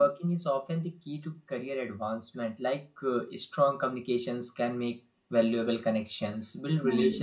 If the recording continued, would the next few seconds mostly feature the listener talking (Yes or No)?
No